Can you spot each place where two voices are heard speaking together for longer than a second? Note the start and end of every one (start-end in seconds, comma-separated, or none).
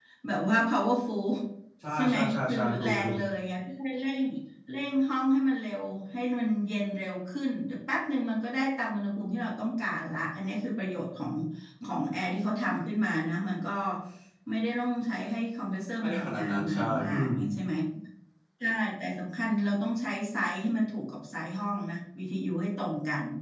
1.9-3.2, 16.0-17.3